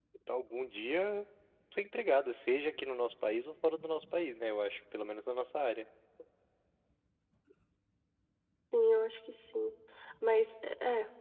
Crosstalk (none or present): none